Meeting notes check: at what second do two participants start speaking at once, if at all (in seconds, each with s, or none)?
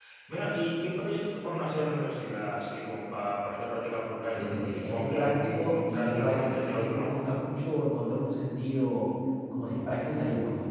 4.3 s